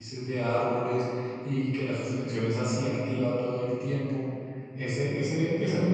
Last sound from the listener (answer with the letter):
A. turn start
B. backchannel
B